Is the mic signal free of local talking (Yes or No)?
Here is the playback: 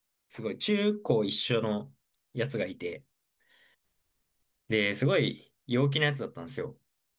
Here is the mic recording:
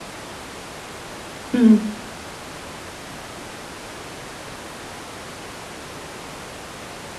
No